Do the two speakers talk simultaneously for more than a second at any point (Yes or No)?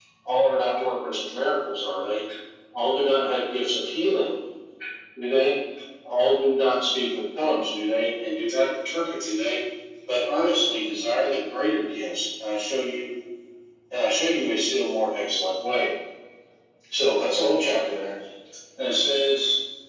No